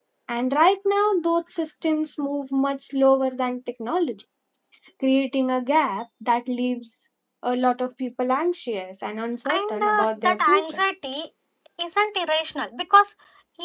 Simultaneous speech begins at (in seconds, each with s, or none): 9.4 s